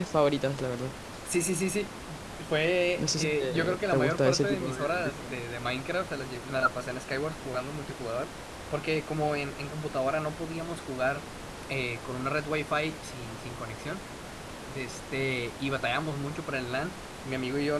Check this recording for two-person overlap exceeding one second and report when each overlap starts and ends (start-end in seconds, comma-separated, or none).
3.0-5.4